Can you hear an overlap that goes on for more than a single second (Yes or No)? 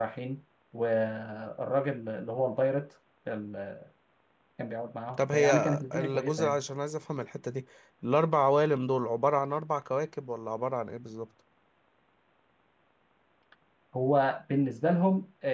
Yes